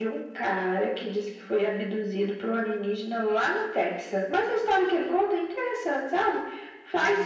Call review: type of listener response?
listening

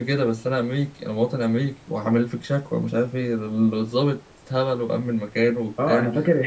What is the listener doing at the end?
taking over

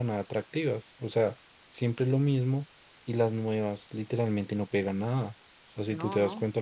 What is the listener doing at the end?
listening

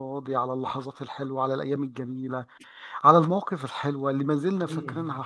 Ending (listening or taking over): listening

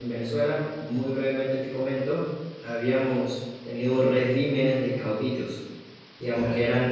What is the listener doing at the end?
listening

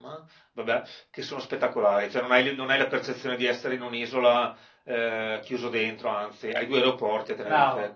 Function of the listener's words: taking over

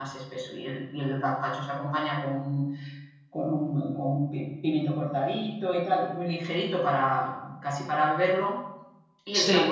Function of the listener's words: listening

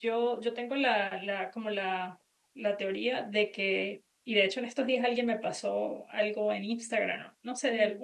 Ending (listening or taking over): listening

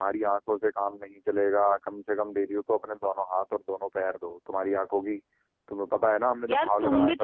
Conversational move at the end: taking over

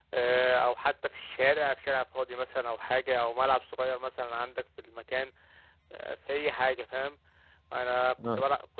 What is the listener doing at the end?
listening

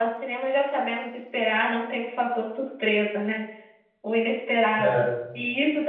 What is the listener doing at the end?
listening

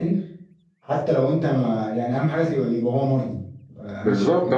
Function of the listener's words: taking over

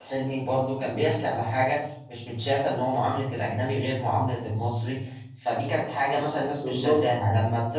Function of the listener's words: listening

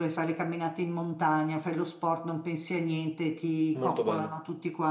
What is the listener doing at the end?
listening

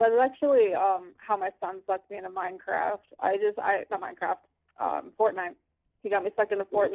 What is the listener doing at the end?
listening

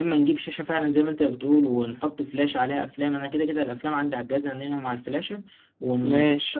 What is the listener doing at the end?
listening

